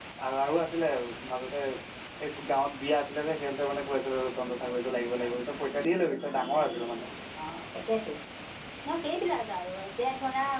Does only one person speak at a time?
Yes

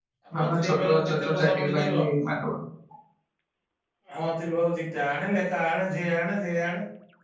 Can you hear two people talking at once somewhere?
Yes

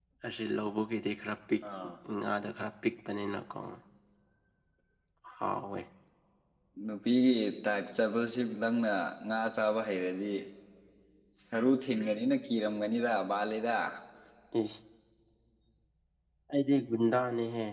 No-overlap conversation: Yes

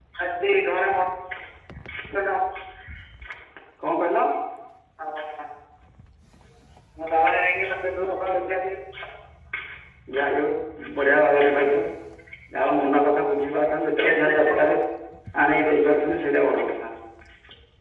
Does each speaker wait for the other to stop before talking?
Yes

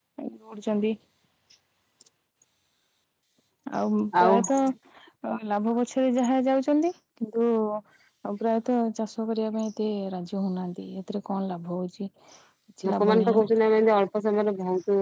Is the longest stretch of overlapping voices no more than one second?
Yes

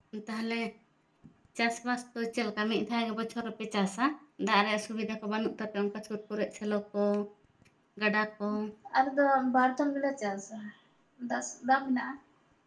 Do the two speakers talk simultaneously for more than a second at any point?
No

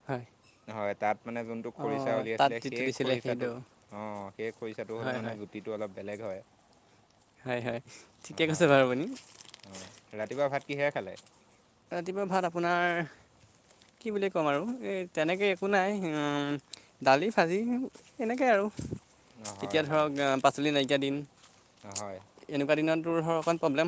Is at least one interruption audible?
Yes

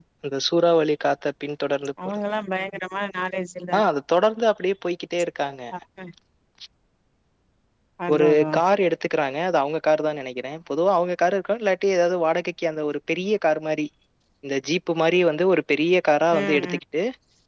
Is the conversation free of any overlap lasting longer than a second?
Yes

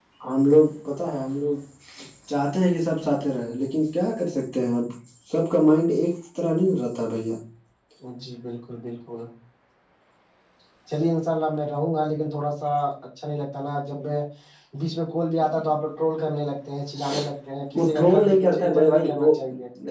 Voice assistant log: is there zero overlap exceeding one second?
No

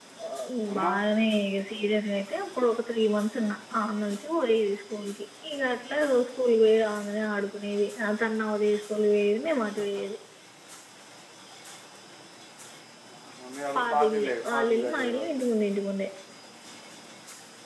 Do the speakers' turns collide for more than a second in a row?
Yes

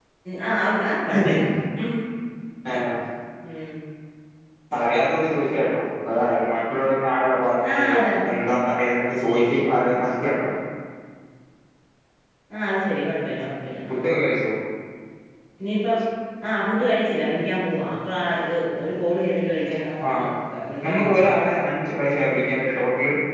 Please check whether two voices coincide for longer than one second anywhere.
No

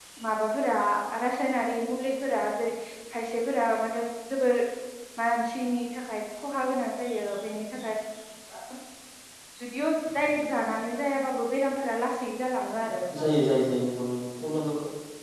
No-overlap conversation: Yes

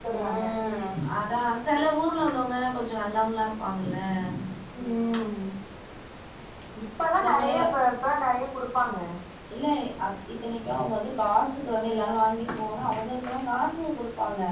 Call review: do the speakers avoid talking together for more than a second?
Yes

